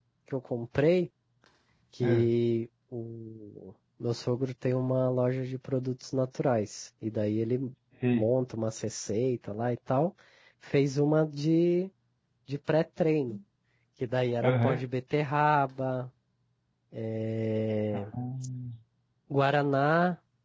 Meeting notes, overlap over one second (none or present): none